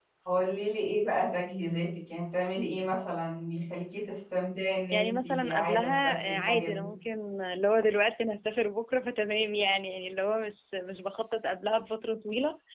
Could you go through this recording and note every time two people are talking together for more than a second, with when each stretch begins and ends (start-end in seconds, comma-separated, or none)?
4.9-6.9